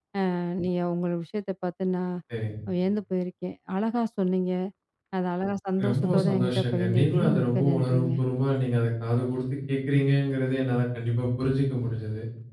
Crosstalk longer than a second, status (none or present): present